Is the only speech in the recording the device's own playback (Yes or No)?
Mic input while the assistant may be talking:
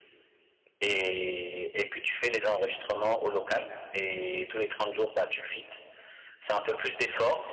Yes